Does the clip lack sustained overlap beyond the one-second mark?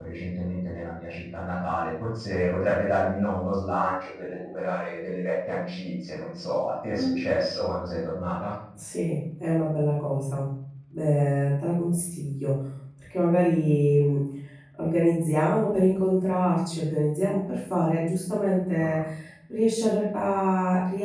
Yes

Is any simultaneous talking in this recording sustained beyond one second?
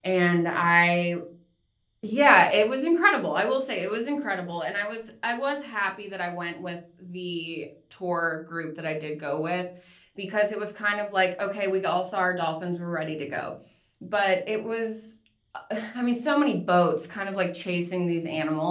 No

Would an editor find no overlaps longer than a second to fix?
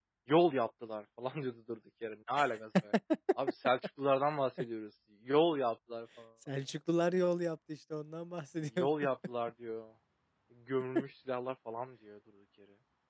Yes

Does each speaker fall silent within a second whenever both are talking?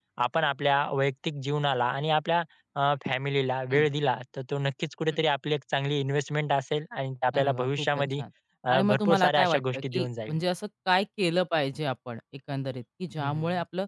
No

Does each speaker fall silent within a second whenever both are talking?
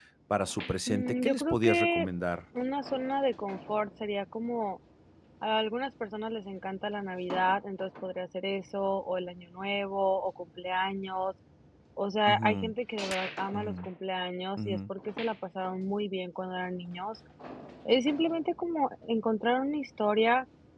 No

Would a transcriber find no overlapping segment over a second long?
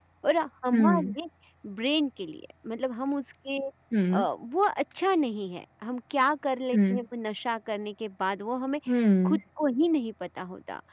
Yes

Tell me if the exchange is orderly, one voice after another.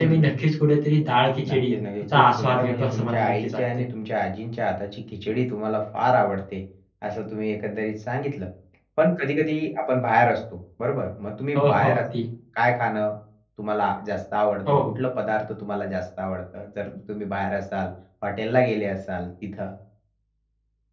No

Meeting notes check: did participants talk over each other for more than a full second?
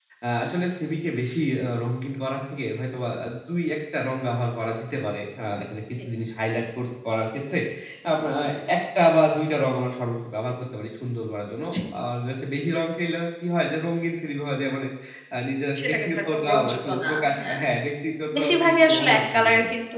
Yes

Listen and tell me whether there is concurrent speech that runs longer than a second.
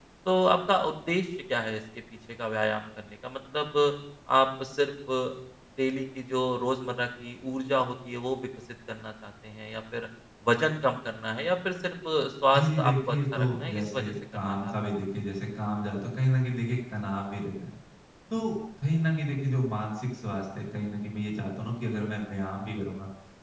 Yes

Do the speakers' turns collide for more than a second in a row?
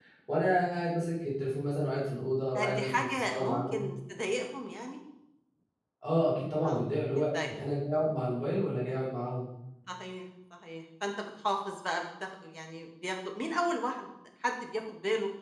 Yes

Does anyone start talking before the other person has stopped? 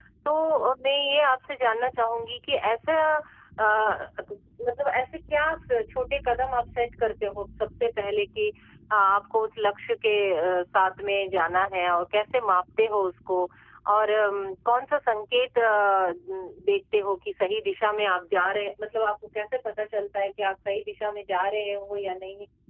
No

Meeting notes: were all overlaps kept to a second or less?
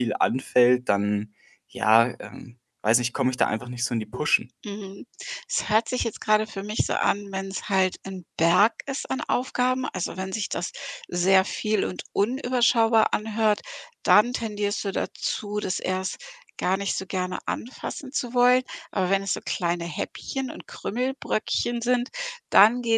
Yes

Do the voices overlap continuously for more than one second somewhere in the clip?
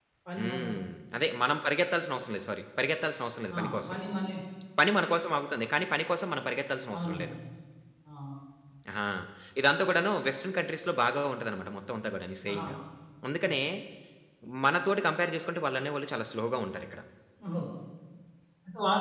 No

